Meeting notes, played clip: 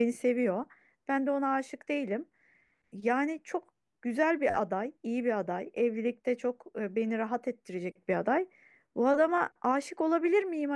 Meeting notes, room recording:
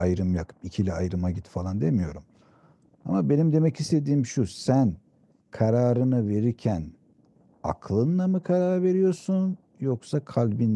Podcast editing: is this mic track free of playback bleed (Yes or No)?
Yes